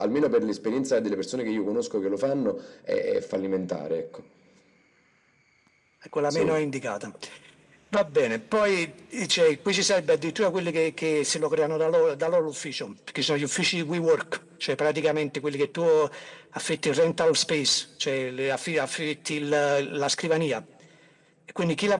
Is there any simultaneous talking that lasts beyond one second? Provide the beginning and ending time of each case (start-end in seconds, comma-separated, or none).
none